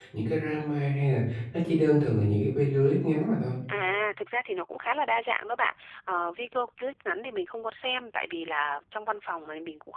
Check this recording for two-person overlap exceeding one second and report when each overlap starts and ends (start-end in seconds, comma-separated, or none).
none